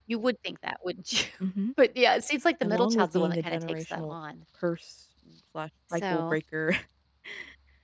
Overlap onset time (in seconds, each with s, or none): 2.6 s